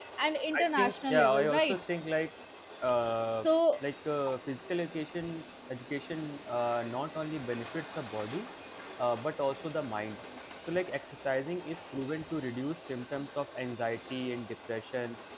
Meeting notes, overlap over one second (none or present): present